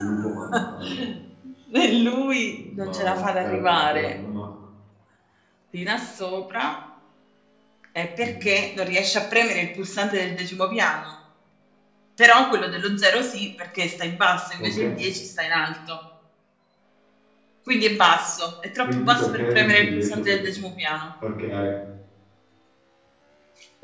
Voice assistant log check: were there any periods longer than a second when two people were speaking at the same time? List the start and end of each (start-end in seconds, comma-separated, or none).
2.5-4.1, 18.8-20.5